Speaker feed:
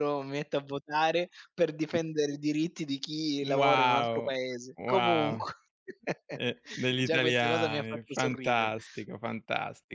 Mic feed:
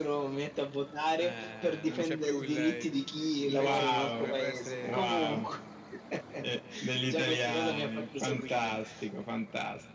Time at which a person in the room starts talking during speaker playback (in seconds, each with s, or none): 1.2 s